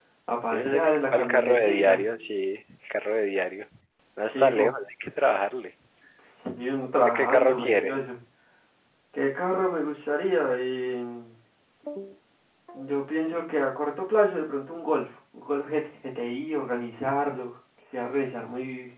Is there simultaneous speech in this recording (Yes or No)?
Yes